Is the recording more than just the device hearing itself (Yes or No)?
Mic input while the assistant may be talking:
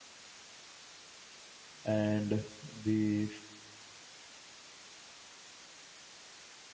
Yes